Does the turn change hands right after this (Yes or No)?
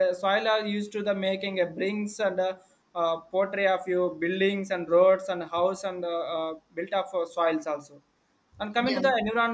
No